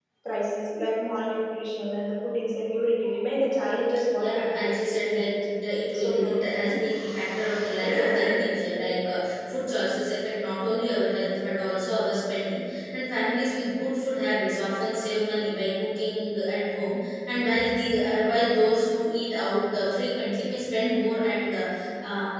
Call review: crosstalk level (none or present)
present